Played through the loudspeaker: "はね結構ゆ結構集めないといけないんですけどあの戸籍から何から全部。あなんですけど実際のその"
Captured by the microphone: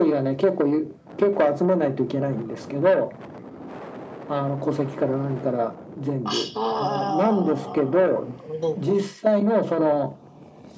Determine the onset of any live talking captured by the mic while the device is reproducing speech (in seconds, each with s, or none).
6.2 s